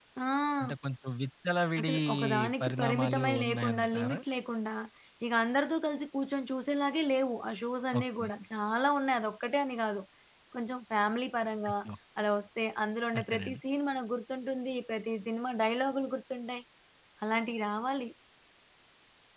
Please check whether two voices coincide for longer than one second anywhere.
Yes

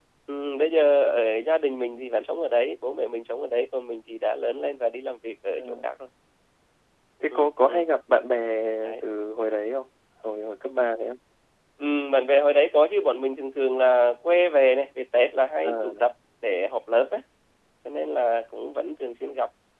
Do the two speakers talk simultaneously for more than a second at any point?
No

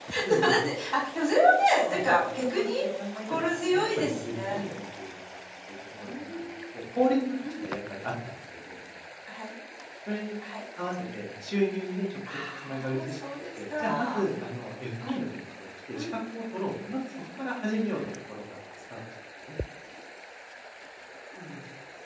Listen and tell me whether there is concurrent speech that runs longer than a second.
Yes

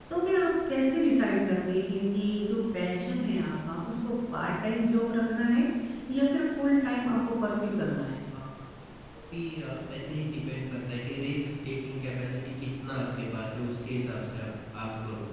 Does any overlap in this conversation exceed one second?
No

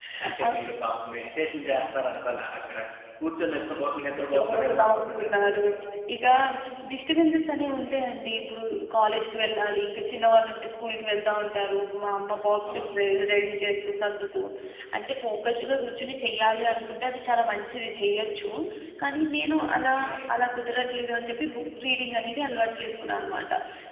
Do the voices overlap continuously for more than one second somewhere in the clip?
Yes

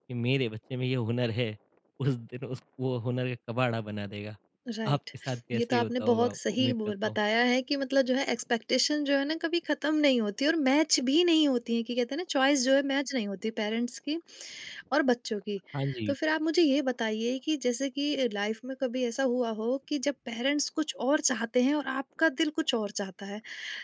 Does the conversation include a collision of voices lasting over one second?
Yes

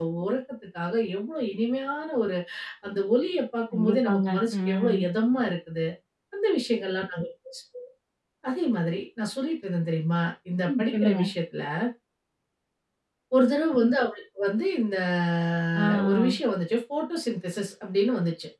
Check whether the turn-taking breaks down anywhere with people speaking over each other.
Yes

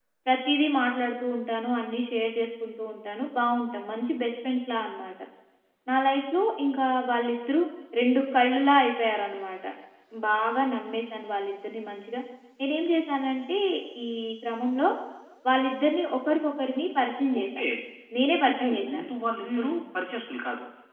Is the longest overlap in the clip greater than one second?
No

